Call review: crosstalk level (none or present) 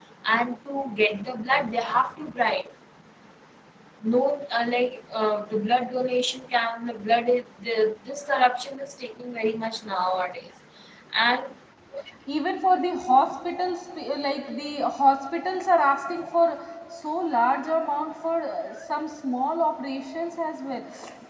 none